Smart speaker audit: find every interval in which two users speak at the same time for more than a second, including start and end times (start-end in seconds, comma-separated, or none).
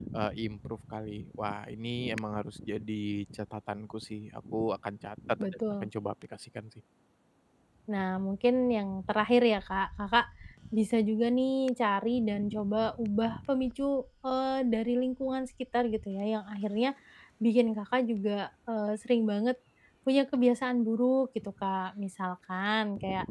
none